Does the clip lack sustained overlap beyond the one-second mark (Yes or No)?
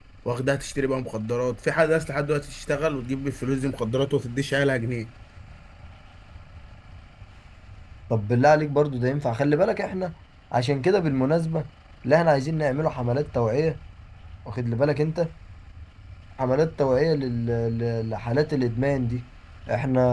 Yes